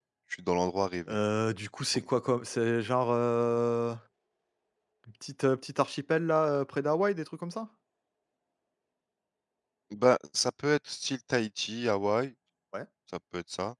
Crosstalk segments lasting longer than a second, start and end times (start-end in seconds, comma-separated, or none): none